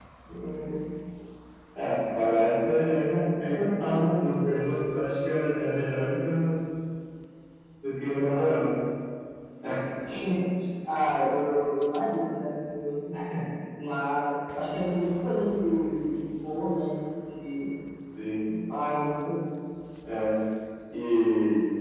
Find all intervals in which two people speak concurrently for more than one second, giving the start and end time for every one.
none

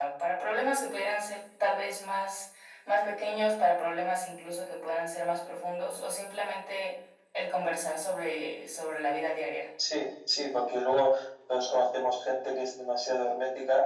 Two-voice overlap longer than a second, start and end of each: none

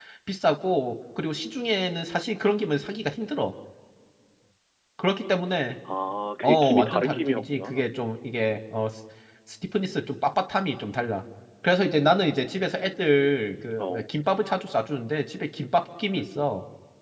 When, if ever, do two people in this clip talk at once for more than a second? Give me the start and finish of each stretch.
6.4-7.8

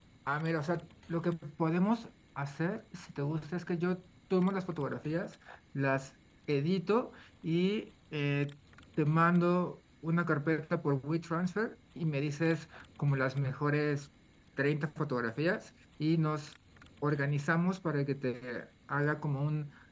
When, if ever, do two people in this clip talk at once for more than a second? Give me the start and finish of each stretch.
none

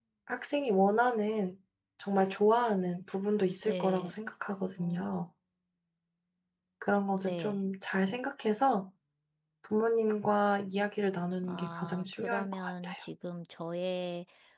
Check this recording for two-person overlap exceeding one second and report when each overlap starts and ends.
11.4-13.0

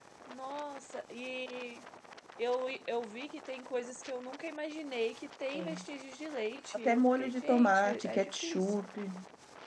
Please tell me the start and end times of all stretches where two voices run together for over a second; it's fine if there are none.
6.7-8.8

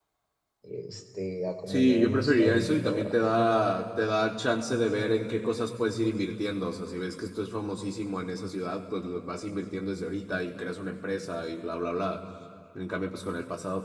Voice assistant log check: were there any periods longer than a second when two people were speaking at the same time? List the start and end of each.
1.7-3.1

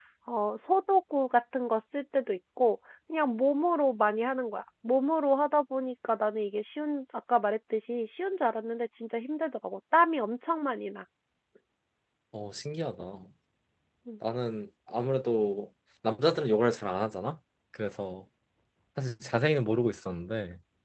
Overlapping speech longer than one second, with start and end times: none

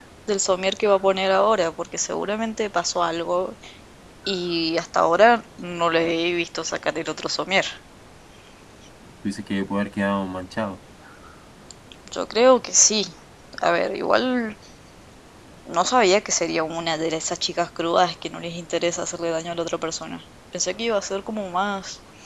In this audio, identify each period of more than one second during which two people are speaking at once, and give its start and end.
none

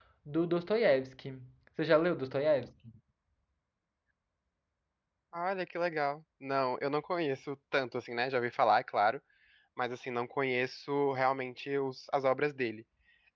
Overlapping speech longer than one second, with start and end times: none

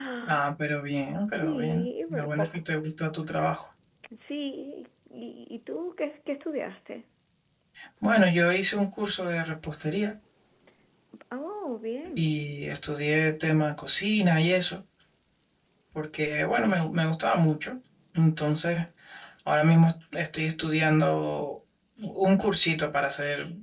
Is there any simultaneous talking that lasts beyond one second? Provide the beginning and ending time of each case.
1.4-2.6

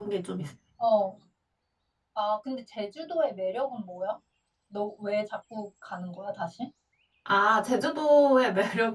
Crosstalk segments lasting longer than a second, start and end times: none

